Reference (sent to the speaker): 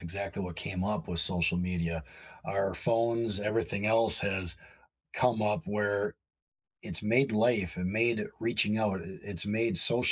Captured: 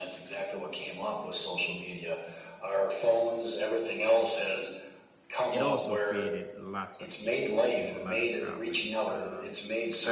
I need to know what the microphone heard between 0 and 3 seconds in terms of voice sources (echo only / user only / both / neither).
echo only